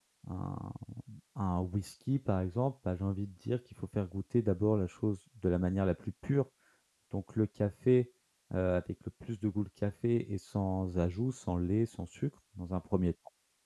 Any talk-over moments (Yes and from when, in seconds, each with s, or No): No